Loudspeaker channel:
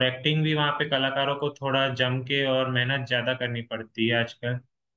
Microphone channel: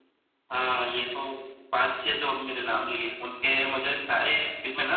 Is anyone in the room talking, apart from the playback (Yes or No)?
Yes